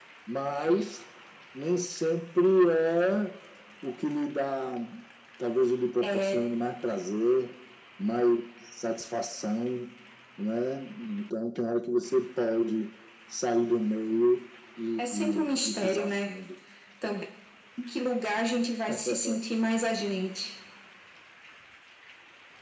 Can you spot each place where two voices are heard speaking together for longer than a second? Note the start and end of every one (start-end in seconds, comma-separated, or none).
15.0-16.3